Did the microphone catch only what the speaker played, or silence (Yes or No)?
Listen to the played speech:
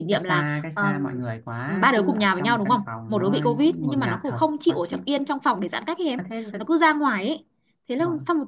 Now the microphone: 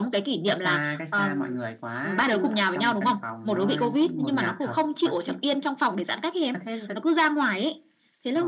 Yes